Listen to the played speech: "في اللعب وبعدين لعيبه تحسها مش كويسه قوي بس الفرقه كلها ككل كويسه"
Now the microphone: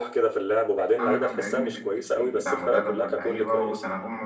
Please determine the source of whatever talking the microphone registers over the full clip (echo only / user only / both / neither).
both